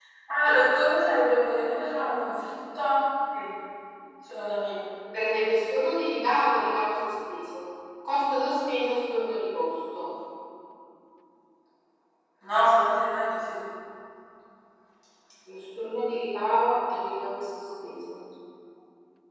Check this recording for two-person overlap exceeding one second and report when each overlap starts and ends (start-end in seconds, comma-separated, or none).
none